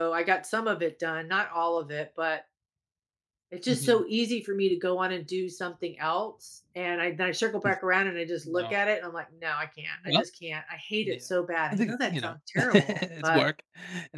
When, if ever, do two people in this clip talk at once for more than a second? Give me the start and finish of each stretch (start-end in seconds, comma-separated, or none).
11.7-13.5